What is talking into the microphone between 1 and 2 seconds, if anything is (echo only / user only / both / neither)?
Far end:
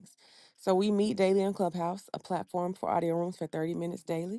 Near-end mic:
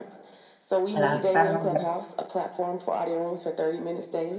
both